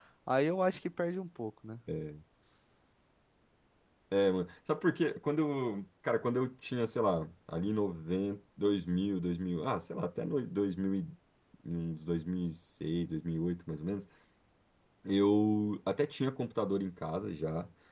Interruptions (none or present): none